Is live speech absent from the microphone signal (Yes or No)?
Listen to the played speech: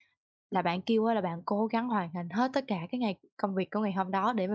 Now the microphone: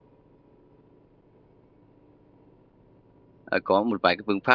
No